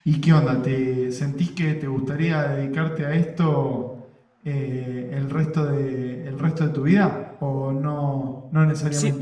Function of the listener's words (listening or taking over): taking over